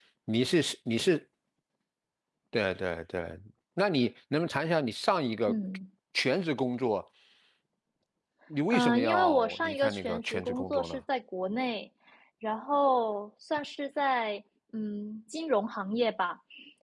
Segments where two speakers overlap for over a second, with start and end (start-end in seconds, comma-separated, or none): 8.7-11.0